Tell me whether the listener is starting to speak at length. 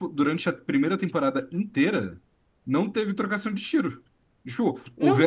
No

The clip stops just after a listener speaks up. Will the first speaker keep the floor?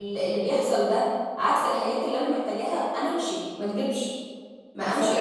No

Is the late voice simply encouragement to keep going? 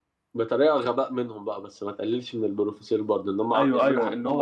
No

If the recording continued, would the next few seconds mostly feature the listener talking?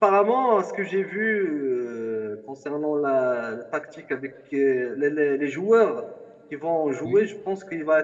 No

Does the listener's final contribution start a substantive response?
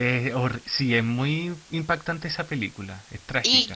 Yes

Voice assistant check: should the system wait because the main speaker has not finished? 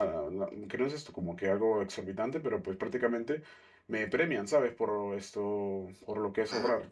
Yes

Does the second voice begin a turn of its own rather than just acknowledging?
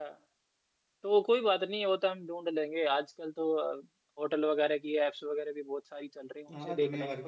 Yes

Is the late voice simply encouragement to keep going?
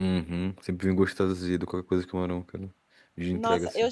No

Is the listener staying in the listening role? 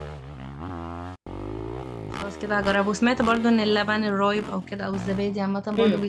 No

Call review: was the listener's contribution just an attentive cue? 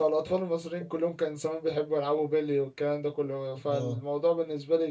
Yes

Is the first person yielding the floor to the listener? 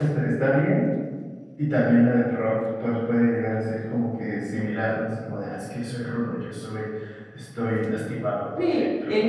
Yes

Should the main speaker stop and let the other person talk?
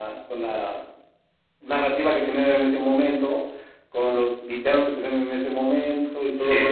No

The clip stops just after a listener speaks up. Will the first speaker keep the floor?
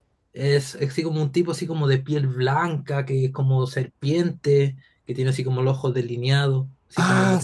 No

